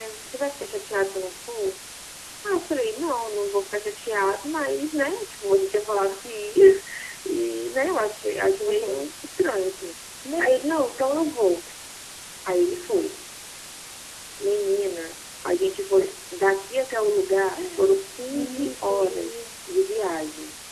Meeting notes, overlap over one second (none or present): present